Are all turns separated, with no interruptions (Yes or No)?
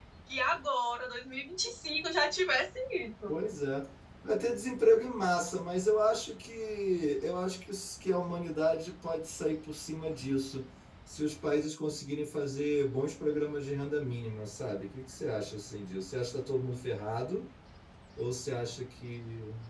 Yes